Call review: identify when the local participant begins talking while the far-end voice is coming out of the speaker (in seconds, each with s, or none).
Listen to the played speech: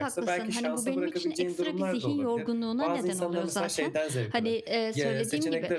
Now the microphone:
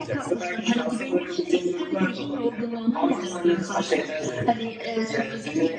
none